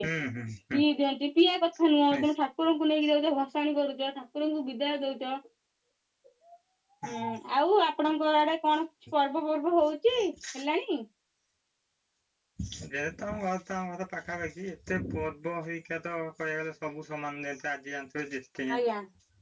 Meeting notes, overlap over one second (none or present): none